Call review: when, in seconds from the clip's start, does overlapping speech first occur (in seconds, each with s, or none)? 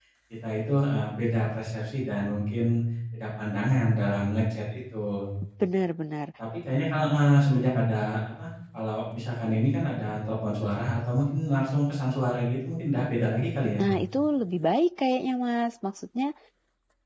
none